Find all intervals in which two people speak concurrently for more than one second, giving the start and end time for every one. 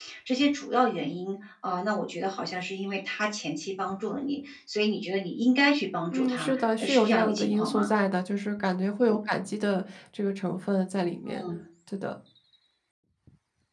6.1-7.9

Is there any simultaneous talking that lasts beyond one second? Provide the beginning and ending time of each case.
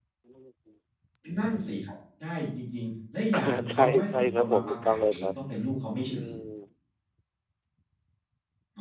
3.3-5.3

